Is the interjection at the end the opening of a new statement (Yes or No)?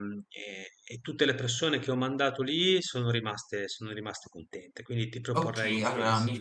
Yes